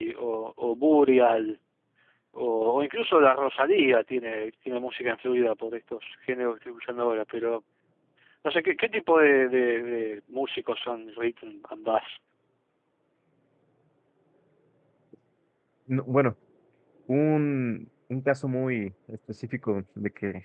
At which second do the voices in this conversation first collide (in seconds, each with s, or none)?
none